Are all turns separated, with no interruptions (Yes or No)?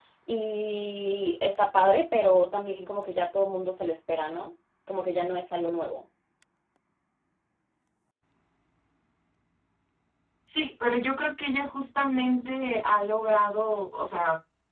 Yes